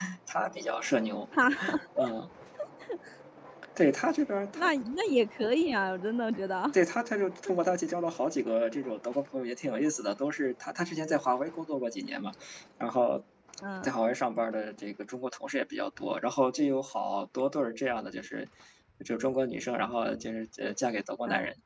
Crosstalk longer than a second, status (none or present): none